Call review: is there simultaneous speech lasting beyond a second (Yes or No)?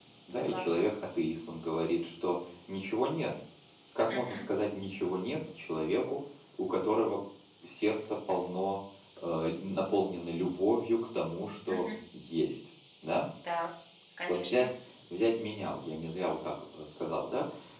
No